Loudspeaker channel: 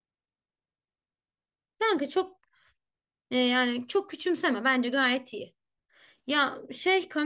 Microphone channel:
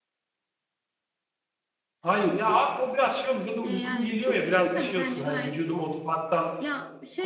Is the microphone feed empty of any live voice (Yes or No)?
No